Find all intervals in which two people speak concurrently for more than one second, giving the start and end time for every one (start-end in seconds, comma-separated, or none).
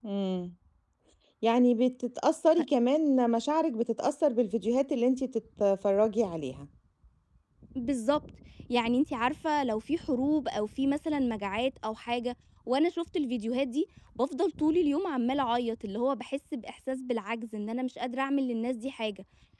none